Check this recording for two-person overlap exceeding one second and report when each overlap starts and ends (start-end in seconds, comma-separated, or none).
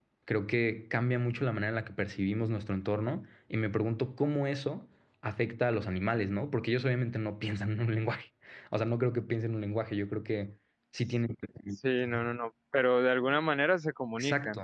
none